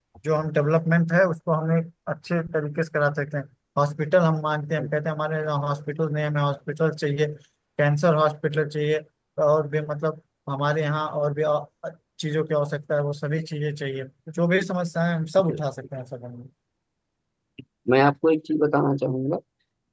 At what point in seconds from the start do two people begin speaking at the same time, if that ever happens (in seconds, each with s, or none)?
none